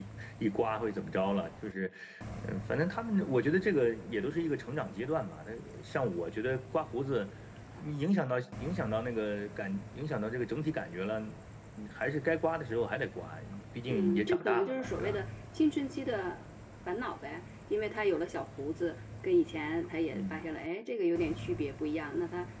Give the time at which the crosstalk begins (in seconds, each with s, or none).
13.9 s